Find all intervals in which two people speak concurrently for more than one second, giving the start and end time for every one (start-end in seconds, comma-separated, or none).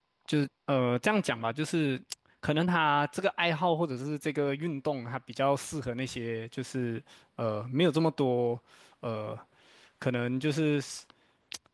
none